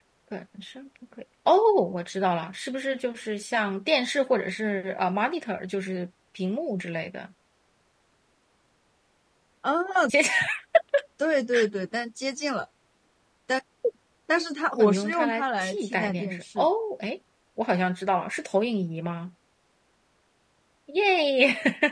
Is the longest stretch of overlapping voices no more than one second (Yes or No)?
No